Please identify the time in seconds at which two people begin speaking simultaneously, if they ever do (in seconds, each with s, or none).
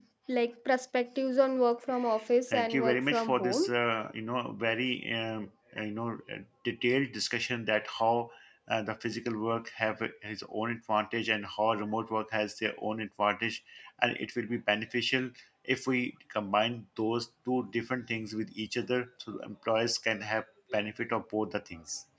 2.5 s